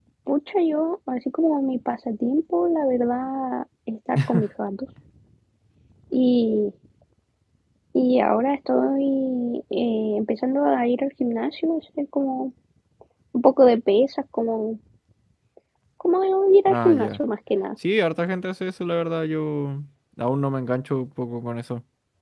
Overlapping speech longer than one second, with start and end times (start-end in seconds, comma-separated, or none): none